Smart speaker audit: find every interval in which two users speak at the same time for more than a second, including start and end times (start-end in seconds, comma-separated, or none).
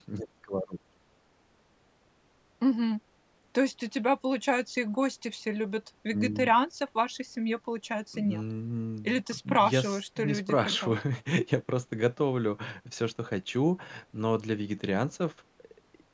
9.0-11.0